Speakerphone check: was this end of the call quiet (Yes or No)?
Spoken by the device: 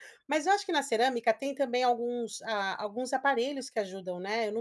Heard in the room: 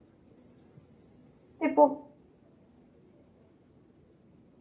No